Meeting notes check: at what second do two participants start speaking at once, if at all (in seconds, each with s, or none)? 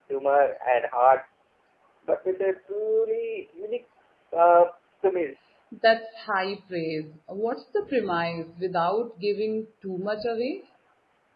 none